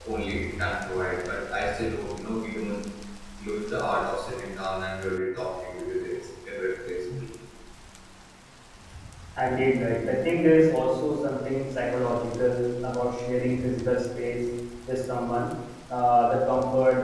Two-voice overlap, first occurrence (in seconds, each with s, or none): none